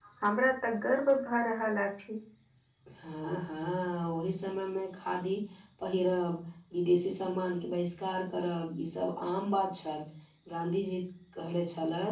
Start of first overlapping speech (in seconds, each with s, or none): none